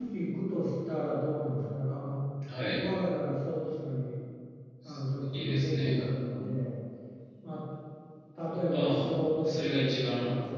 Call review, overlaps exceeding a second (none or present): present